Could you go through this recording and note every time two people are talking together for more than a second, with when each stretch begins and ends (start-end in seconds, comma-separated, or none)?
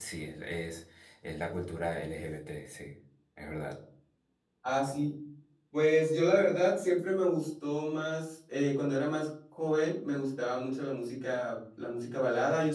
none